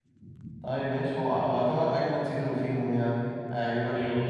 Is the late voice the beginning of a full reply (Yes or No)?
Yes